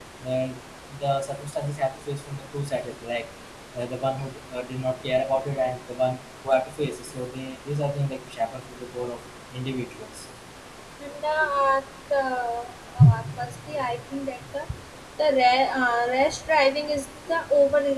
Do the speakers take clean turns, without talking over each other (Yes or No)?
Yes